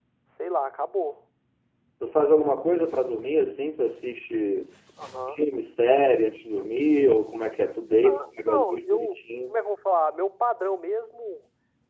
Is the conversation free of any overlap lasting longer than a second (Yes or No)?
No